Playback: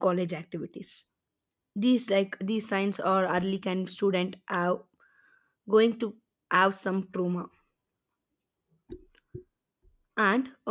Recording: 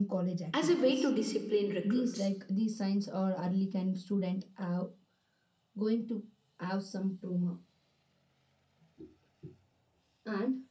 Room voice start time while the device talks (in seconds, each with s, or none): 0.5 s